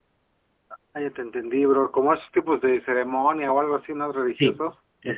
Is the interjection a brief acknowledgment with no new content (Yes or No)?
No